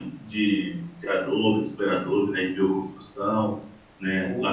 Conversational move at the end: listening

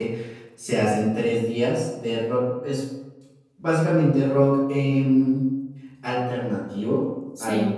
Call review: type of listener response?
listening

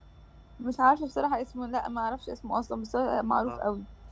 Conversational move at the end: taking over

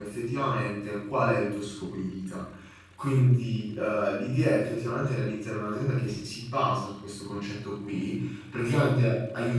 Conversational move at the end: listening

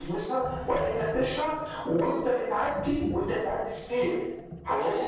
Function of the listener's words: listening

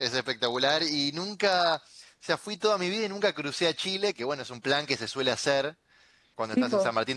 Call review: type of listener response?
listening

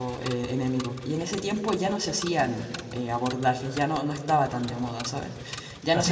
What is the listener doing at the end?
taking over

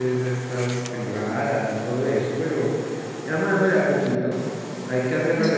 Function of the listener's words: listening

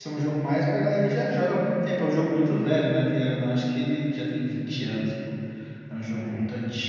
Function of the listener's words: listening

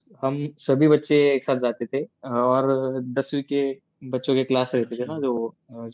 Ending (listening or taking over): listening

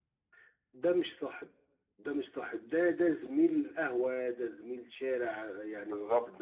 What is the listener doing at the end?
listening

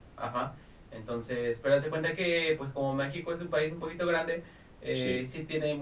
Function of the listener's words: listening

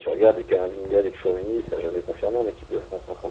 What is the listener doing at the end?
taking over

